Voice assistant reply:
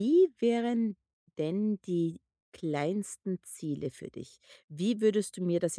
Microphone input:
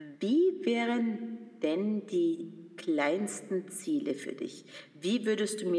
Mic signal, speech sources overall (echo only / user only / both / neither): echo only